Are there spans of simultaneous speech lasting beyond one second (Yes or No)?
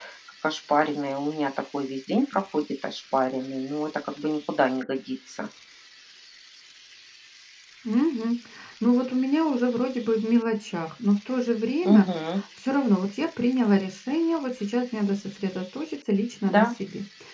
No